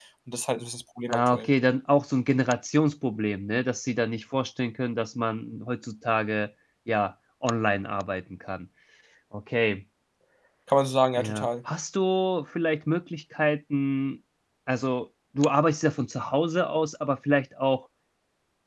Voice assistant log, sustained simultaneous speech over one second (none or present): none